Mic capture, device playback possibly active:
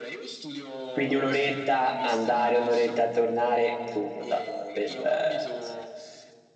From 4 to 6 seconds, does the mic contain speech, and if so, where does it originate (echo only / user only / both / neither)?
both